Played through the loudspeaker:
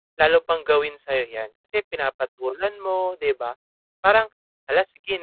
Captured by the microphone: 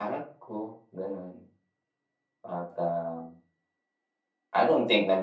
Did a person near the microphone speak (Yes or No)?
Yes